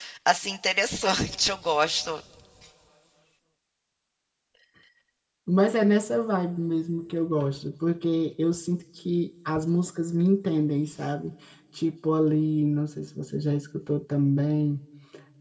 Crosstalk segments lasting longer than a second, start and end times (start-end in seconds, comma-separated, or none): none